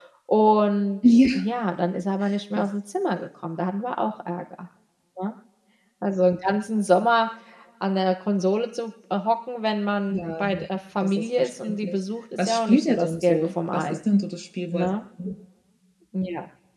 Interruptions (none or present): present